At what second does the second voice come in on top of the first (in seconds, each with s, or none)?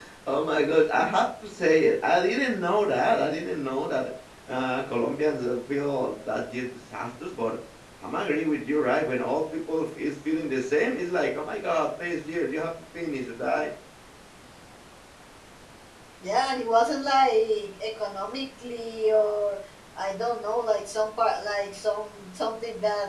none